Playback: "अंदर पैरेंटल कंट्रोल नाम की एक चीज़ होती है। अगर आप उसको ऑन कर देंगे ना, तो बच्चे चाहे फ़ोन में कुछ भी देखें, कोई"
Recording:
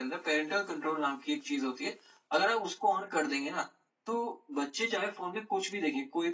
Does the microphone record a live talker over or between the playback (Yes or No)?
No